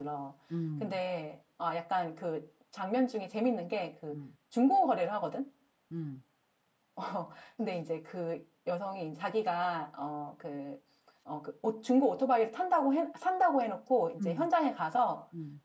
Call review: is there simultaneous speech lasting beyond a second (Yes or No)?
No